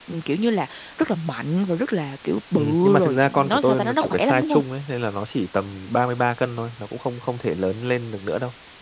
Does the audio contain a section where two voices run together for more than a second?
Yes, from 2.6 s

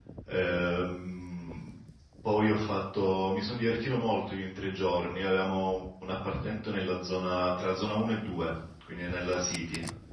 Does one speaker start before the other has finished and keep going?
No

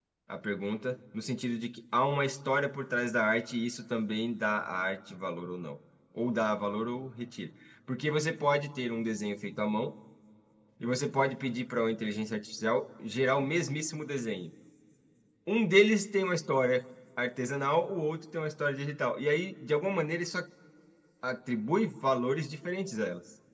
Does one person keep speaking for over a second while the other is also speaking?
No

